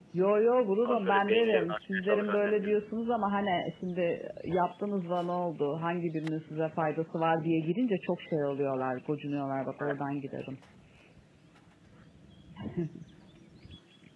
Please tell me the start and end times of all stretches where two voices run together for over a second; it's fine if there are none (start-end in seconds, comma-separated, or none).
0.8-2.8